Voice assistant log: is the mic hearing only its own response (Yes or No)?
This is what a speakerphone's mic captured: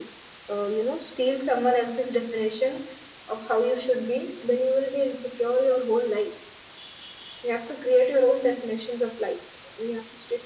Yes